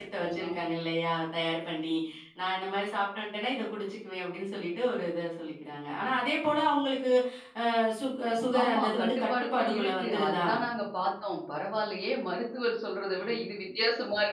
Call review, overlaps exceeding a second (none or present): present